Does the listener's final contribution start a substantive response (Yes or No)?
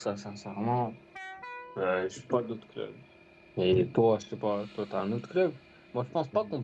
No